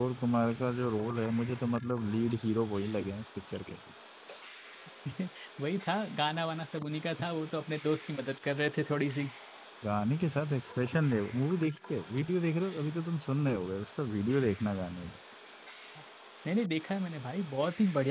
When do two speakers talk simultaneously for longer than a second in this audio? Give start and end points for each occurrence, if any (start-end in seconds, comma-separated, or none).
none